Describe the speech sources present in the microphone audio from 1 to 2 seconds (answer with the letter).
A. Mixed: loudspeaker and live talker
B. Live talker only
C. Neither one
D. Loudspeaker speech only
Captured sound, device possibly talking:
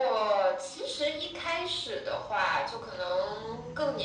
D